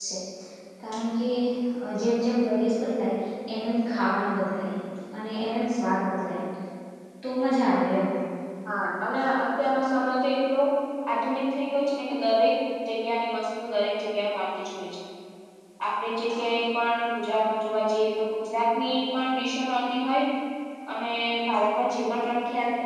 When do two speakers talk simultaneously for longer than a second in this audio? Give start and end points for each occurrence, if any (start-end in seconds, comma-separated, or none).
none